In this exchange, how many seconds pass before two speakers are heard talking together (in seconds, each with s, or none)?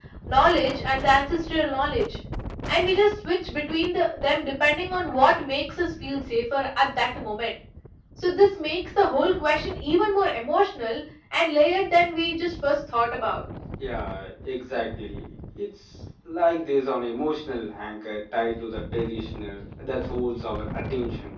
none